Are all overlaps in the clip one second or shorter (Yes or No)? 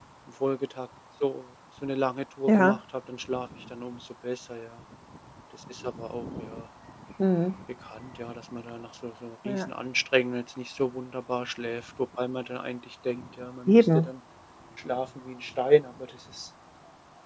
Yes